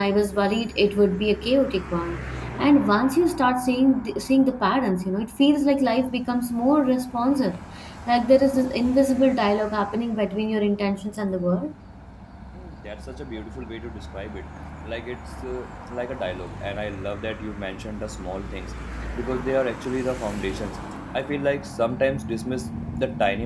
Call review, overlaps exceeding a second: none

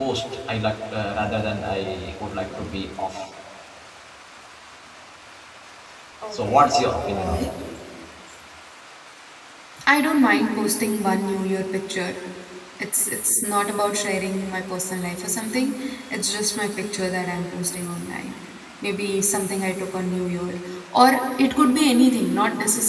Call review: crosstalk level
present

